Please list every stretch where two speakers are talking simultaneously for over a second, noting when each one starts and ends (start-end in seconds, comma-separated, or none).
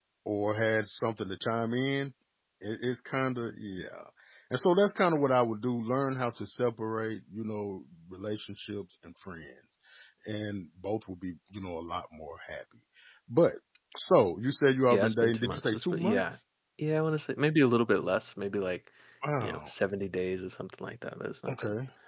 14.9-16.4